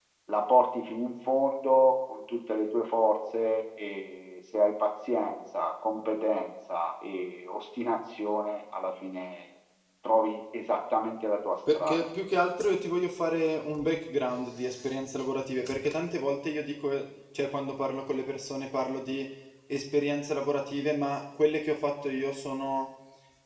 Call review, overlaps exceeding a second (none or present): none